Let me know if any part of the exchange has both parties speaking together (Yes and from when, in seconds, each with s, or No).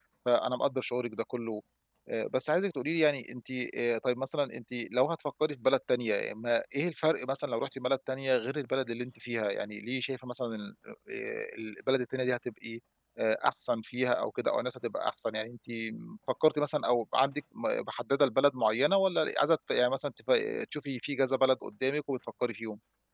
No